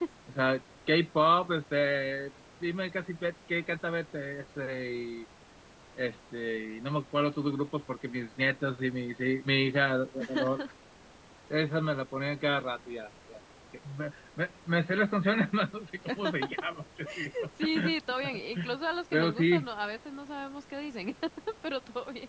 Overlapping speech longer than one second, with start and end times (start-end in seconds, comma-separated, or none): none